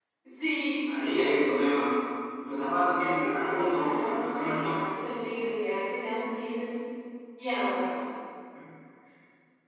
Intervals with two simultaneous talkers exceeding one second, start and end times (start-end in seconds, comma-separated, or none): 3.0-4.8